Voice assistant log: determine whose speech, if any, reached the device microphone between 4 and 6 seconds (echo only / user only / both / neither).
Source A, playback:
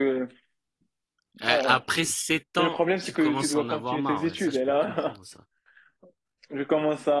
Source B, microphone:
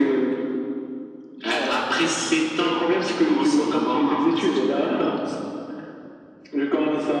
echo only